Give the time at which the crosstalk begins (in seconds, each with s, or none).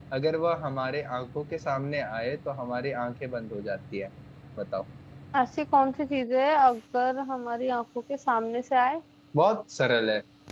none